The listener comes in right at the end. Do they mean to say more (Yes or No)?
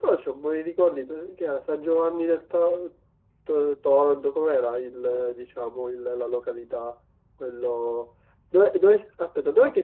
No